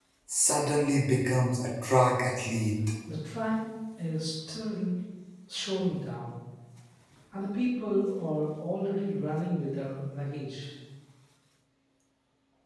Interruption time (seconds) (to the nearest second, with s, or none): none